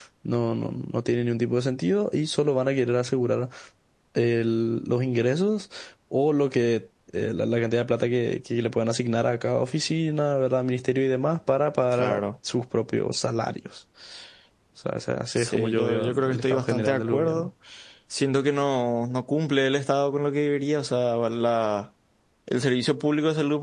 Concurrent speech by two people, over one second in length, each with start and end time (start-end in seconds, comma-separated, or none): 15.4-17.5